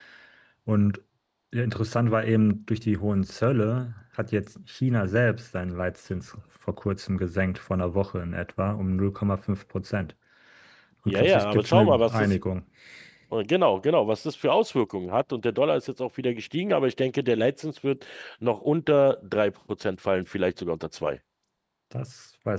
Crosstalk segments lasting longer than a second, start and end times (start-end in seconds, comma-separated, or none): 11.1-12.3